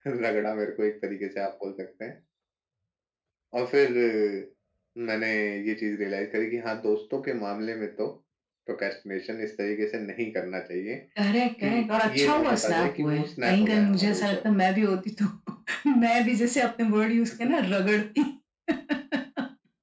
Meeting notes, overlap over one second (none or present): present